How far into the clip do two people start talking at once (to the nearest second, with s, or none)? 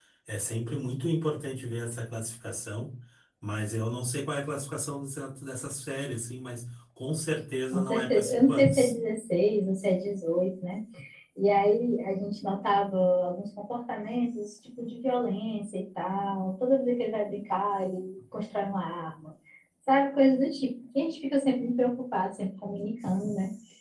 8 s